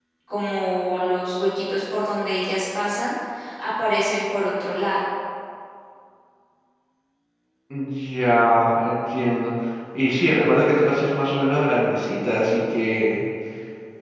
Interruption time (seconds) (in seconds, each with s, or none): none